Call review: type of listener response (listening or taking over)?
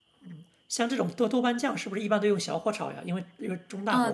taking over